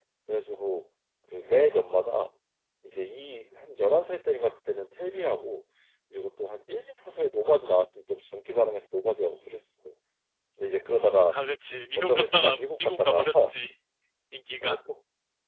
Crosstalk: present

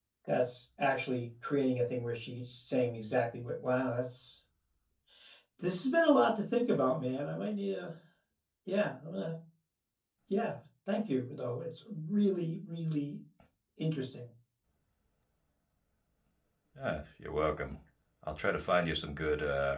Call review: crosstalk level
none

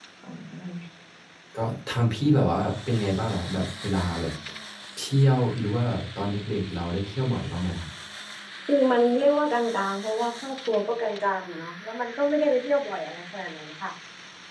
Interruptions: none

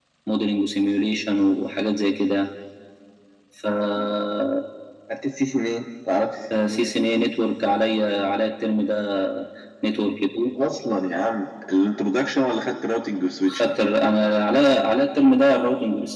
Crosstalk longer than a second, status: none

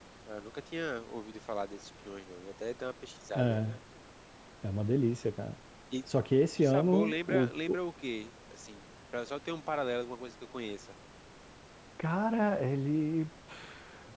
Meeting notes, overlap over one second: present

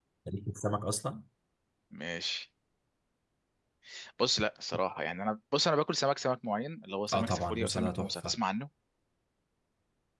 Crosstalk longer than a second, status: present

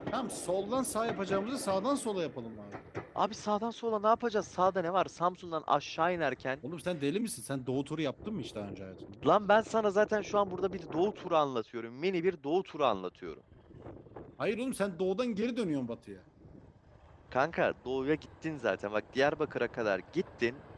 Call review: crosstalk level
none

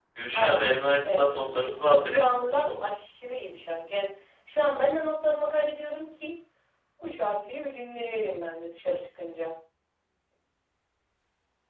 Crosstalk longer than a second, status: present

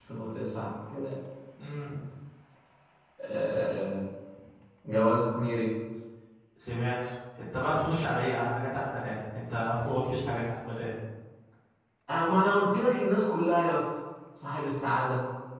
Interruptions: none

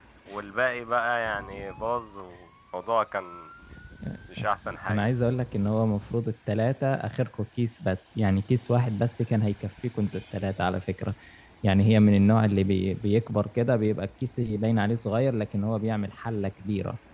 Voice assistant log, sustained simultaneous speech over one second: none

